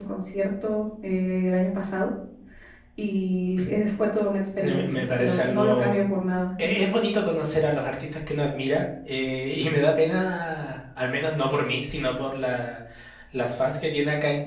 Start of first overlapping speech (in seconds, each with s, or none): 4.6 s